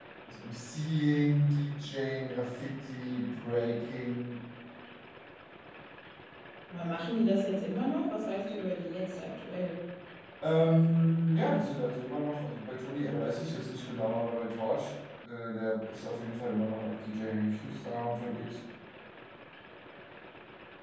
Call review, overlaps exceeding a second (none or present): none